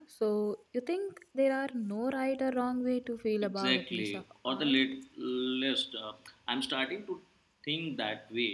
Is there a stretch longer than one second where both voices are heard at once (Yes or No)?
Yes